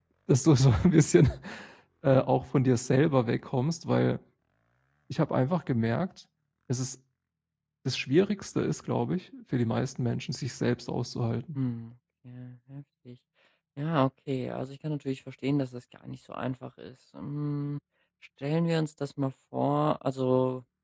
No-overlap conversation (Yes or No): Yes